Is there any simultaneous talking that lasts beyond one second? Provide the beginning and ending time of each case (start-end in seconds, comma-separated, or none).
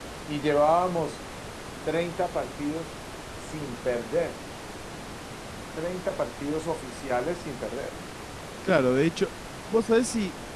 none